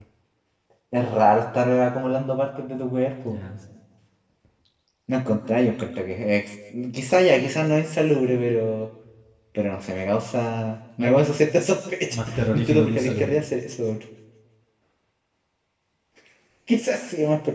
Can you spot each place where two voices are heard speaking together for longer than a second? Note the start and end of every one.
12.1-13.3

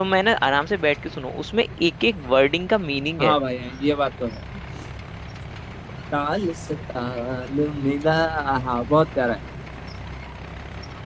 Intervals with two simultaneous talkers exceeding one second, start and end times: none

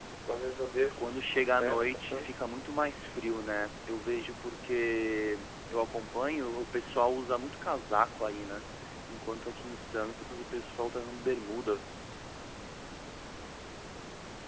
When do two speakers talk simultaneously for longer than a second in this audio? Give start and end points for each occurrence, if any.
0.9-2.4

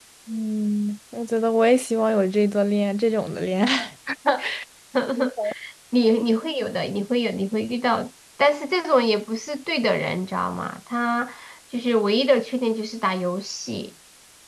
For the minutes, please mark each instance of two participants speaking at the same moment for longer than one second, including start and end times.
none

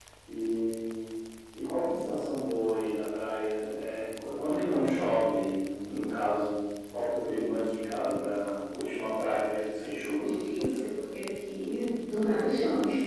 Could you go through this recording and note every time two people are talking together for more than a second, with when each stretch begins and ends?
none

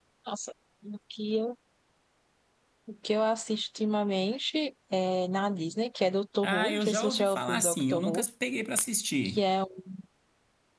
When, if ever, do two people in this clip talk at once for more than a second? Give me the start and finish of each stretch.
6.4-8.2

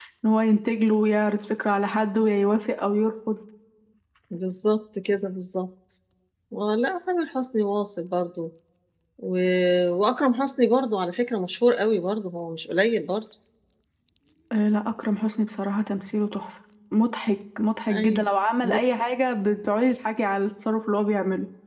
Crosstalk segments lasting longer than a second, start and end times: none

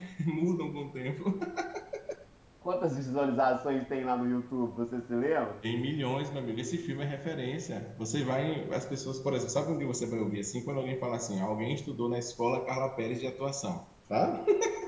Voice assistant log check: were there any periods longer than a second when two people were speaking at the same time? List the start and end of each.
none

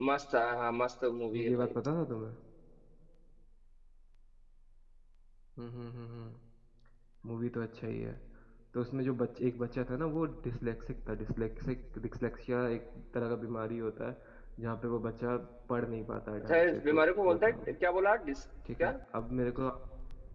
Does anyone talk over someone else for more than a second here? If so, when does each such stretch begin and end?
16.4-17.7

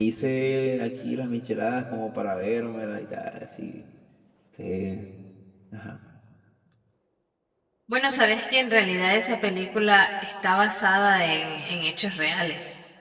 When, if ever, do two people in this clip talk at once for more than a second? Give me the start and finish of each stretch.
none

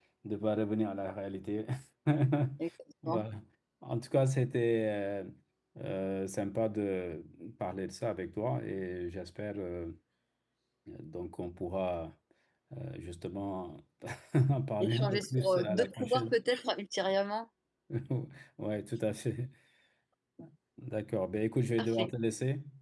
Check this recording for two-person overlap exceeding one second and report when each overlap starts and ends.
14.8-16.4

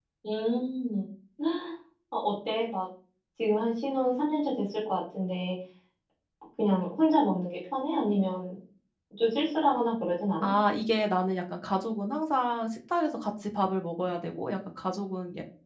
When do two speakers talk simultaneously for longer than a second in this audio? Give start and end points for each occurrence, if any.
none

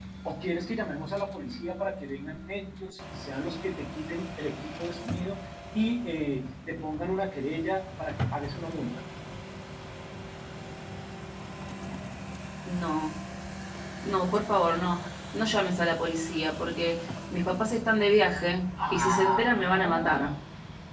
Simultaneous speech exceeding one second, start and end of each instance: 18.9-20.3

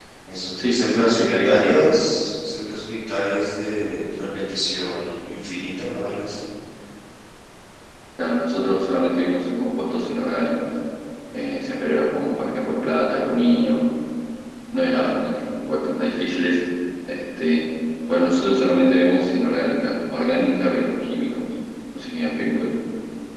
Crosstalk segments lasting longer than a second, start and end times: 0.6-1.8

